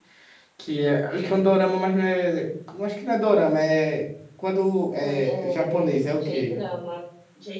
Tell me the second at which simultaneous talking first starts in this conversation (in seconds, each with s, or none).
5.0 s